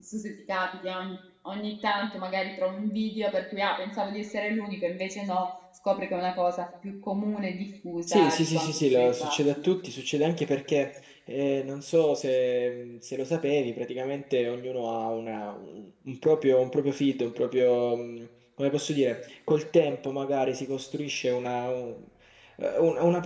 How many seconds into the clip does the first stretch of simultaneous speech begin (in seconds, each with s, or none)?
8.1 s